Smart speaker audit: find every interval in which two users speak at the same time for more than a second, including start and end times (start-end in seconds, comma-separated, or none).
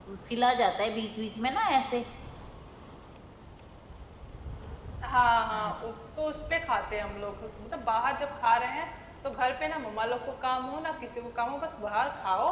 none